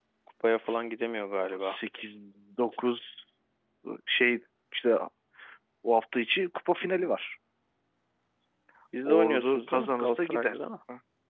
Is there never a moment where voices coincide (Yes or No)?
No